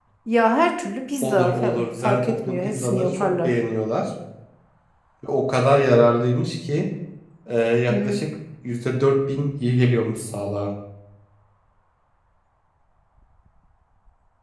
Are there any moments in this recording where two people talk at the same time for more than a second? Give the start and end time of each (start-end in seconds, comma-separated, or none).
1.2-3.5